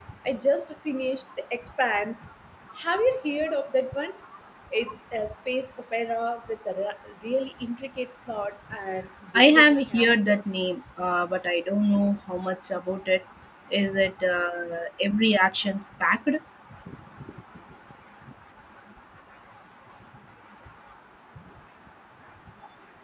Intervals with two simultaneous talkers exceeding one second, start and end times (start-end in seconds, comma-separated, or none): 9.3-10.6